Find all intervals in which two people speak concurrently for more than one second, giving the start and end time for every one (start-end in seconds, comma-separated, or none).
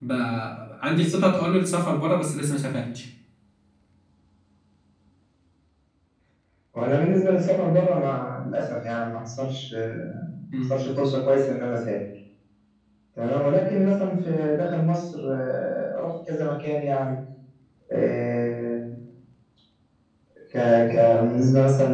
none